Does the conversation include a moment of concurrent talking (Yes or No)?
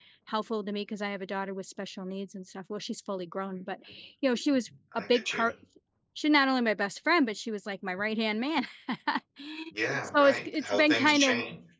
Yes